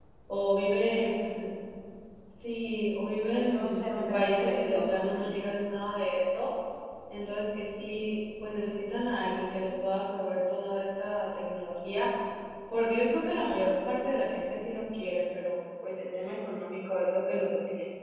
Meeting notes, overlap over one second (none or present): present